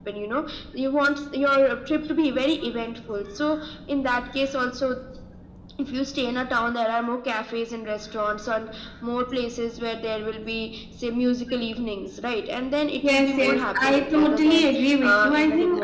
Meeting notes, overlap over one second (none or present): present